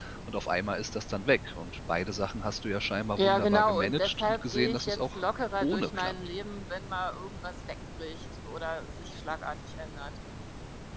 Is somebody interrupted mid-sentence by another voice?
Yes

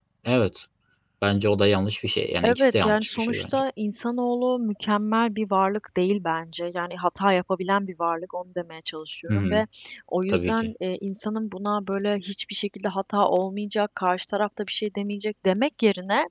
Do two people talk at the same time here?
Yes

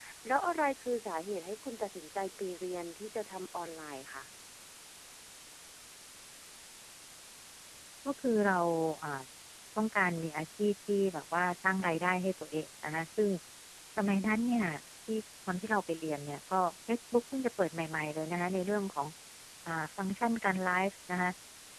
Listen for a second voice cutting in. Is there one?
No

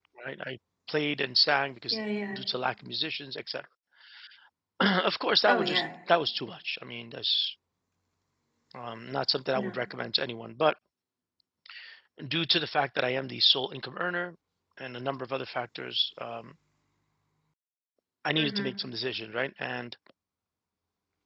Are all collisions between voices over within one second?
Yes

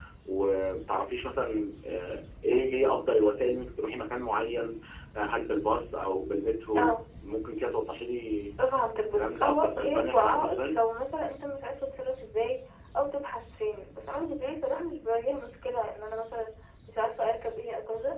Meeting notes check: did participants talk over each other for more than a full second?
Yes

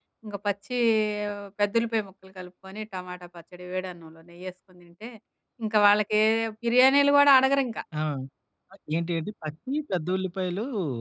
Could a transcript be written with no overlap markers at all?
Yes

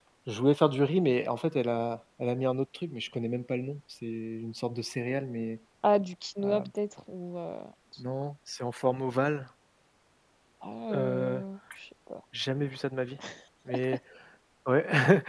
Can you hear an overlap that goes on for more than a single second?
No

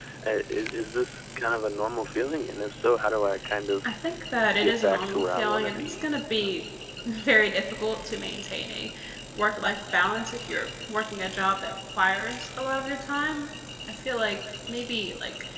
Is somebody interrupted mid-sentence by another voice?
Yes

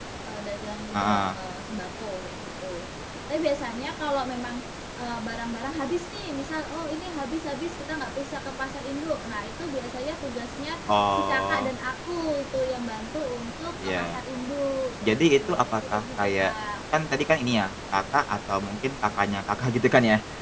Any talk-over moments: Yes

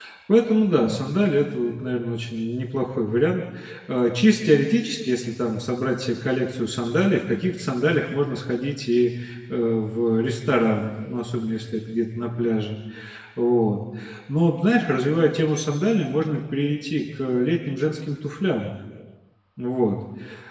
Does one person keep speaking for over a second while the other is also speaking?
No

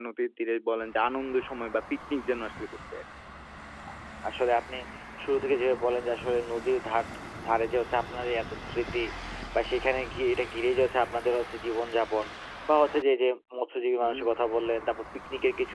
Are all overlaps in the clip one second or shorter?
Yes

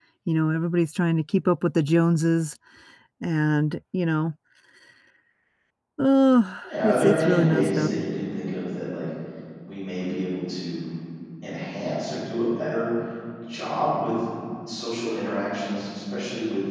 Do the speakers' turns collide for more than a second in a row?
Yes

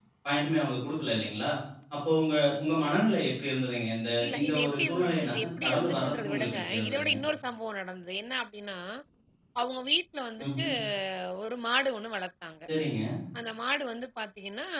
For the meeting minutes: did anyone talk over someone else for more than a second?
Yes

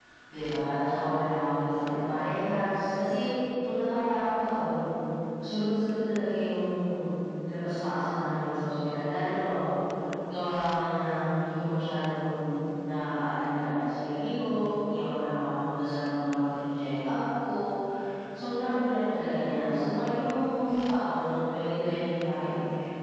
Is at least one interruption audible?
No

